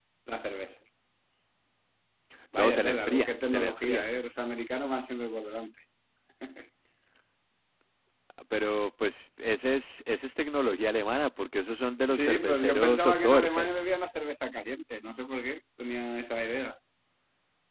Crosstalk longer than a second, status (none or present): present